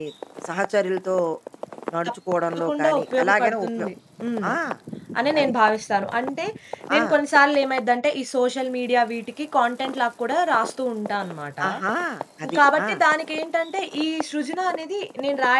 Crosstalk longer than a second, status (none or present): present